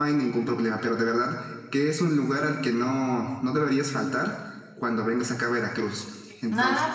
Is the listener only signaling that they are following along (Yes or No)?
No